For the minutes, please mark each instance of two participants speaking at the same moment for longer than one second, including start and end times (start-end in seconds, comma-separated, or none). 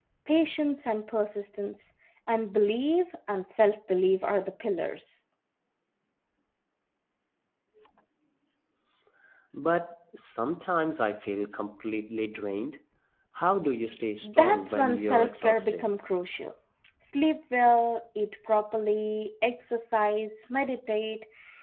14.2-15.9